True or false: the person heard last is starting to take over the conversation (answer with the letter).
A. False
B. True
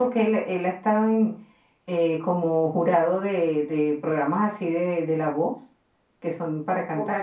A